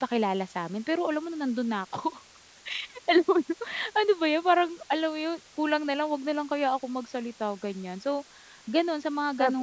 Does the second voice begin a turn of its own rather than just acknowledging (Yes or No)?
No